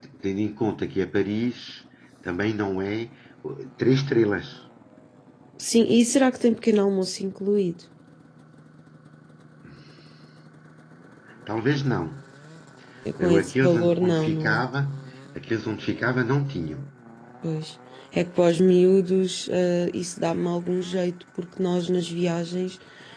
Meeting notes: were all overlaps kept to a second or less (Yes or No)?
No